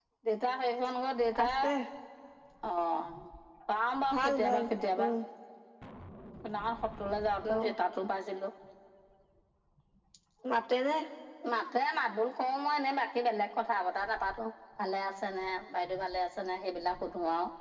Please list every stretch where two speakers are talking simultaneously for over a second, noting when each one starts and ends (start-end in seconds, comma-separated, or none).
none